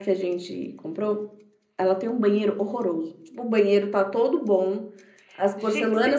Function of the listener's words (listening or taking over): listening